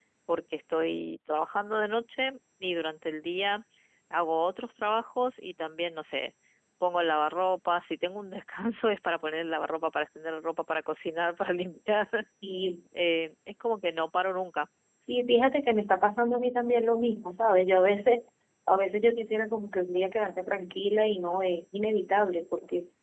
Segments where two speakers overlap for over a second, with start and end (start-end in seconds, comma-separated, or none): none